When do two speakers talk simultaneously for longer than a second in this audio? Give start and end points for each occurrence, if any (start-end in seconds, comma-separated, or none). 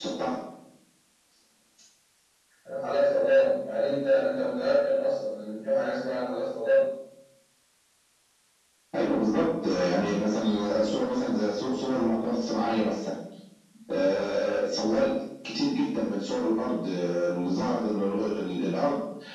none